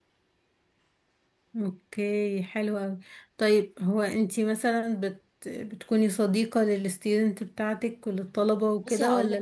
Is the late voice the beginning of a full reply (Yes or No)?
Yes